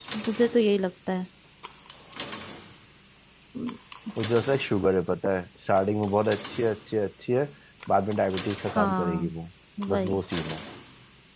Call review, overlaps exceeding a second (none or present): none